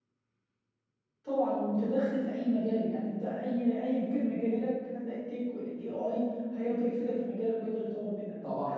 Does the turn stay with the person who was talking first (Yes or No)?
Yes